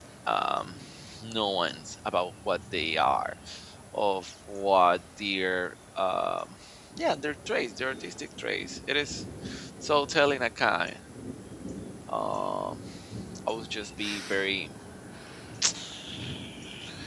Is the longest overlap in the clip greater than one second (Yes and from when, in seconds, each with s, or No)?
No